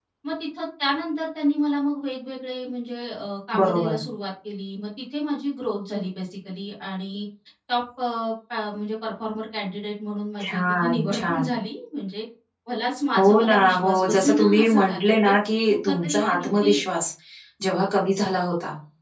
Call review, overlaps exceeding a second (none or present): present